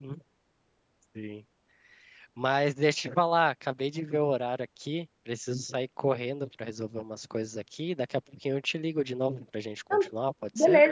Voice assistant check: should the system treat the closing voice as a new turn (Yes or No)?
Yes